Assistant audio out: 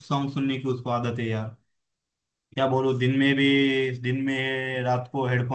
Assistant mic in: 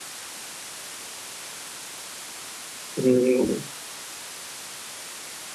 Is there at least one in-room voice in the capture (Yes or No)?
Yes